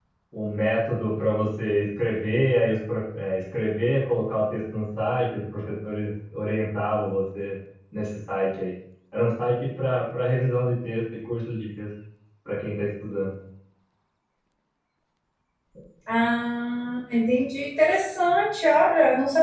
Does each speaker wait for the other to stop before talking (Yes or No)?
Yes